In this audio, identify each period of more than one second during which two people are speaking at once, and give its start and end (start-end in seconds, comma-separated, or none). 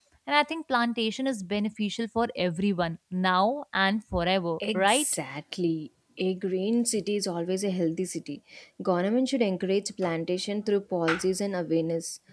none